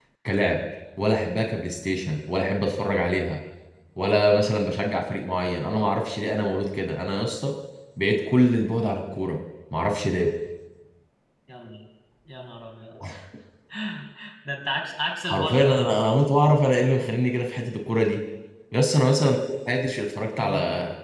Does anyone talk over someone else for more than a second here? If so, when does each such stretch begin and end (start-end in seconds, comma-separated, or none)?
none